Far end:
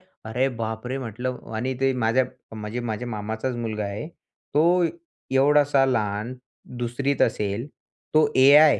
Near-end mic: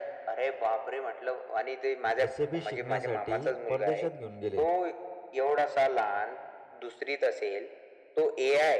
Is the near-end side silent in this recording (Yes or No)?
No